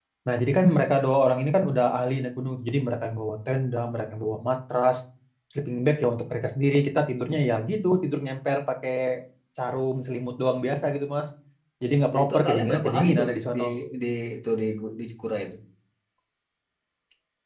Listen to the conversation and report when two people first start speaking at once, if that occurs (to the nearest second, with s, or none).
12 s